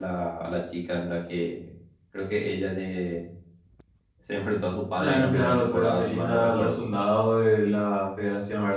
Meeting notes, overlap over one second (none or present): present